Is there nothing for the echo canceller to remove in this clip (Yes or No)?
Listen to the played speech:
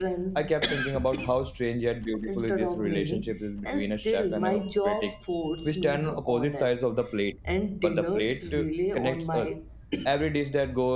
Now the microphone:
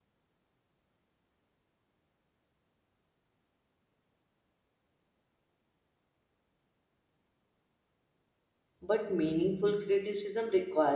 Yes